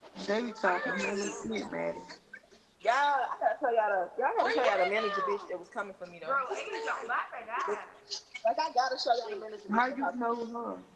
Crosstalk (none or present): present